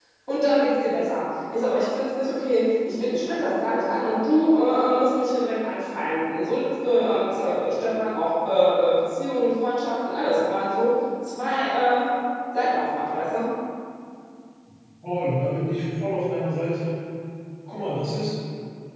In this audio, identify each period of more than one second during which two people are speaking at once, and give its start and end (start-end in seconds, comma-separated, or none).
none